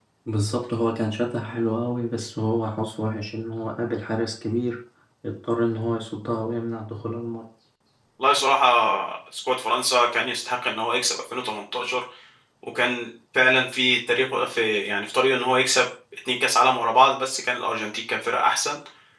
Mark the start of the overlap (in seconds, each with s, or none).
none